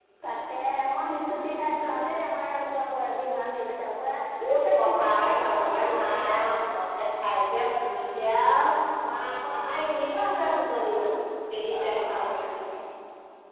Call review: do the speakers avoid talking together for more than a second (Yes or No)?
No